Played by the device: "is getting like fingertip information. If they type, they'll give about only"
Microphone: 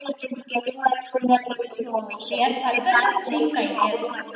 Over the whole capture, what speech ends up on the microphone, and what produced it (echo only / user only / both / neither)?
both